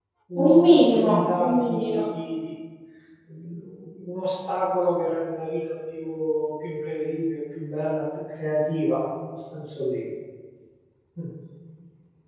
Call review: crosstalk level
present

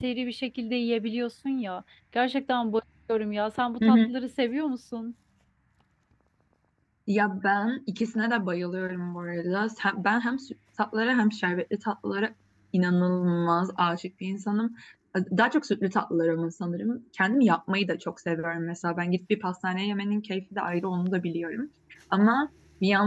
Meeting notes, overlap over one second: none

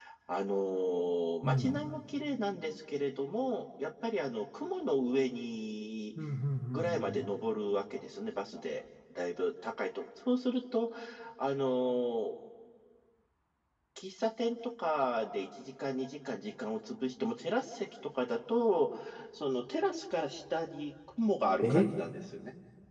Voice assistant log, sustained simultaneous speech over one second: none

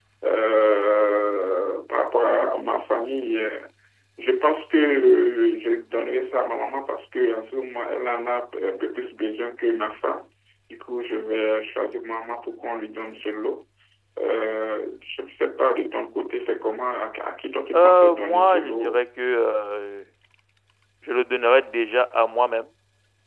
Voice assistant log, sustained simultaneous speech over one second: present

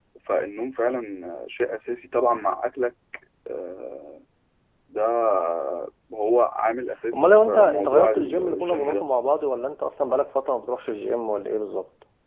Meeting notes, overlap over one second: present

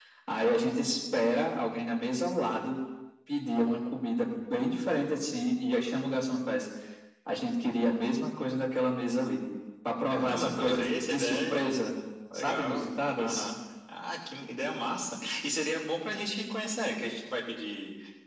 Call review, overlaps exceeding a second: present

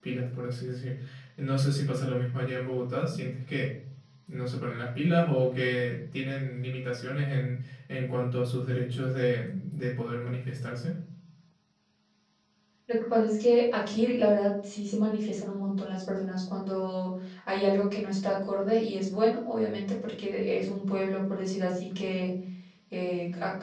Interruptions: none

